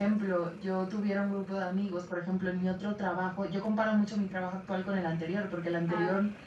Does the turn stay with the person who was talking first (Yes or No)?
Yes